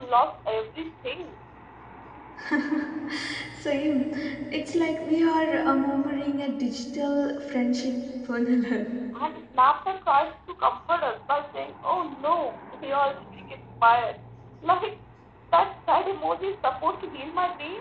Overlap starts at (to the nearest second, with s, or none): none